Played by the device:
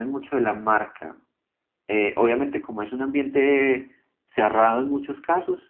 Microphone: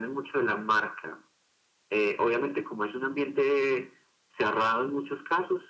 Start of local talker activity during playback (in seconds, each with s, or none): none